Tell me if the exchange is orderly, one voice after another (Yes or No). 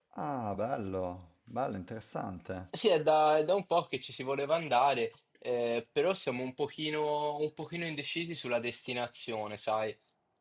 Yes